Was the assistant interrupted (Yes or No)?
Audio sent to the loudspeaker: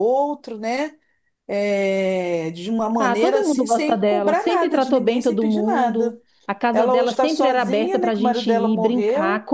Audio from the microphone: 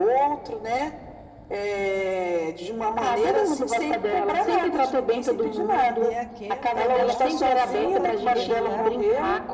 Yes